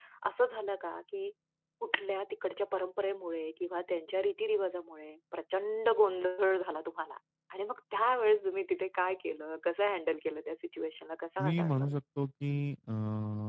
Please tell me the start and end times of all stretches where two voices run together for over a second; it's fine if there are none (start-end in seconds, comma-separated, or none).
none